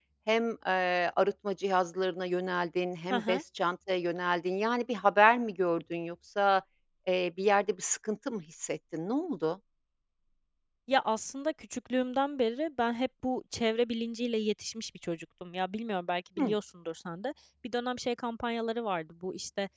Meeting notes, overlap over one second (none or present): none